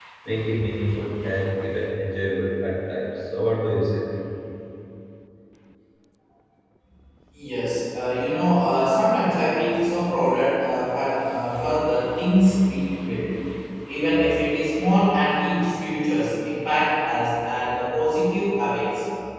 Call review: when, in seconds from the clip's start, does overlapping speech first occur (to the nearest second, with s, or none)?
none